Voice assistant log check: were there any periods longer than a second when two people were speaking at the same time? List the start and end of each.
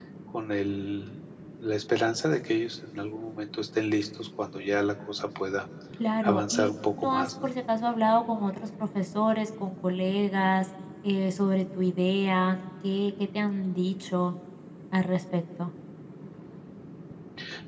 6.2-7.5

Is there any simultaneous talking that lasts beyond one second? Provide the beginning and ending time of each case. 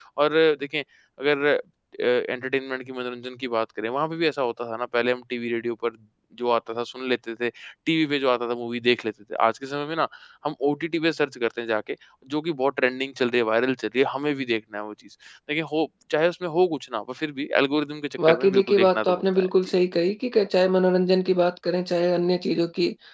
18.3-19.5

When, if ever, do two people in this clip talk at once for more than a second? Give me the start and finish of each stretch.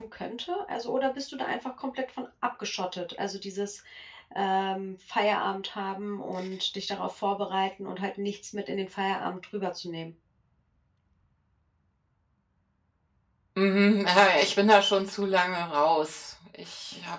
none

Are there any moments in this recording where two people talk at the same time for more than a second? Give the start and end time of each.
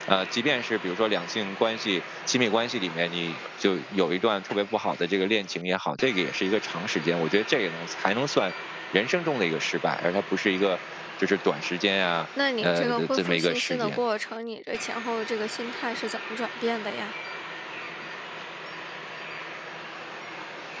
12.6-14.0

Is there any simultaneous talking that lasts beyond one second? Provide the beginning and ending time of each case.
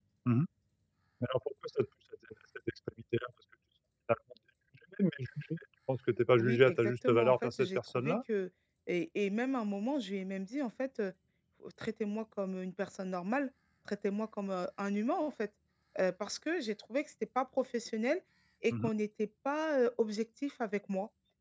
6.4-8.2

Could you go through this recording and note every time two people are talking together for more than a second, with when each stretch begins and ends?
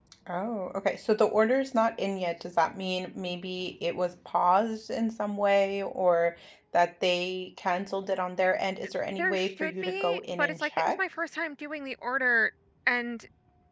9.2-11.0

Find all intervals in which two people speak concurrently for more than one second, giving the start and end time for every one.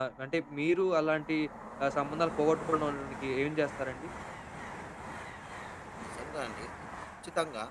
none

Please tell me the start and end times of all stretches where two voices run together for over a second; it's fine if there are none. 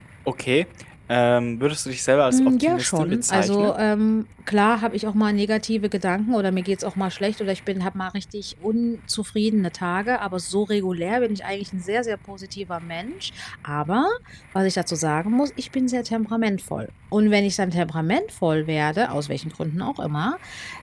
2.3-3.8

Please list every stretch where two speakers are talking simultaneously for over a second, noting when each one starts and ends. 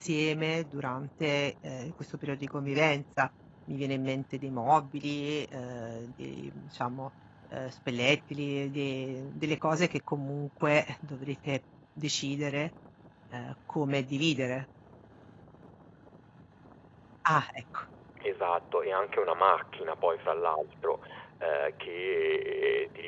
none

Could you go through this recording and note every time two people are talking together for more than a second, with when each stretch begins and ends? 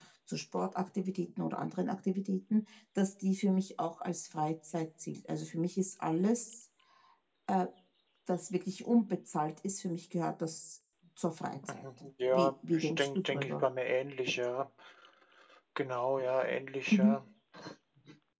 12.3-13.6

